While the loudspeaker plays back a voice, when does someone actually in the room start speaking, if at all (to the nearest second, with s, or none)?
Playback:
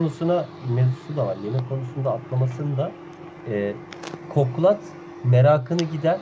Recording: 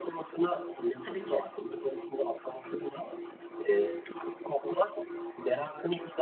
1 s